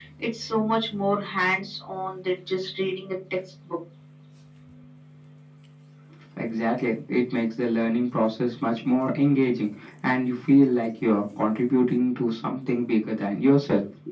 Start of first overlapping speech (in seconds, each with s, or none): none